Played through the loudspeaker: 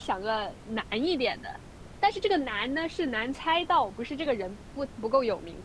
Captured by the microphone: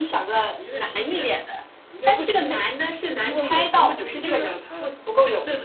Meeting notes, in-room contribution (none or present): present